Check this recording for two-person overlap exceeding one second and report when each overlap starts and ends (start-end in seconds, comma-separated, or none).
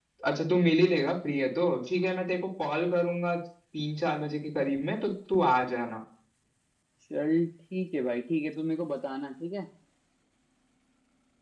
none